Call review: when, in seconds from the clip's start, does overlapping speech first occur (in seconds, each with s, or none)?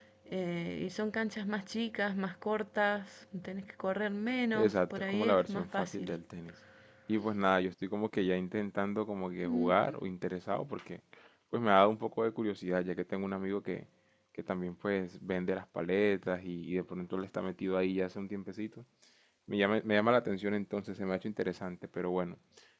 4.5 s